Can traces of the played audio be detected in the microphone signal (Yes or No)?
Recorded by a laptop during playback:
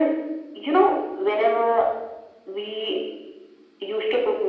Yes